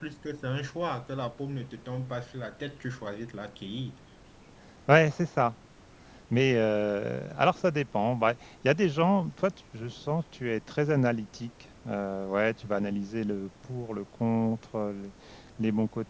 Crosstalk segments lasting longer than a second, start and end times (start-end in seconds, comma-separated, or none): none